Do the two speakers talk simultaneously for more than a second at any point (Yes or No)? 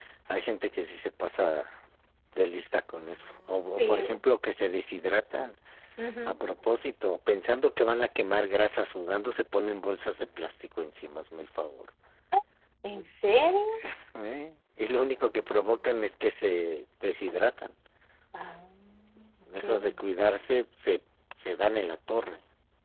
No